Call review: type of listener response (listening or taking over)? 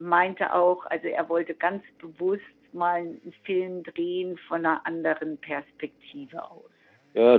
taking over